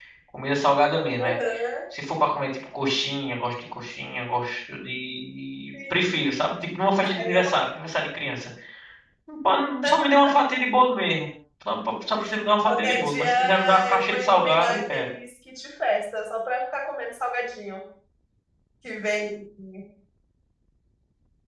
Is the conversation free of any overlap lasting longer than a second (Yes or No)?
No